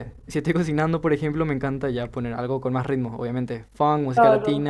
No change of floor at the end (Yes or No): No